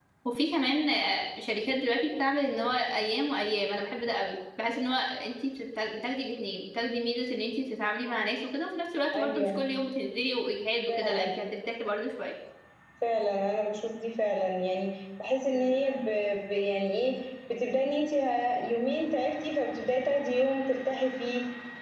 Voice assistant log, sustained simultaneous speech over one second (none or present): none